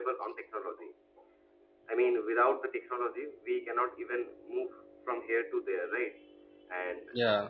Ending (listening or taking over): listening